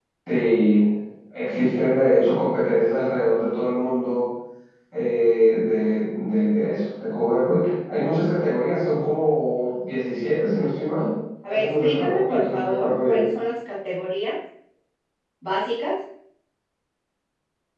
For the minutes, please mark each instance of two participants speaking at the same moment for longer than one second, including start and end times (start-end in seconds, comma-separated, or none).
11.5-13.2